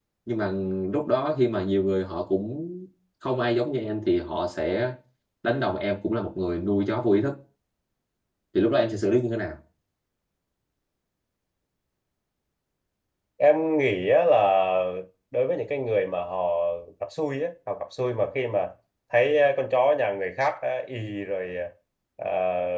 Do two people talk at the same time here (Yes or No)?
No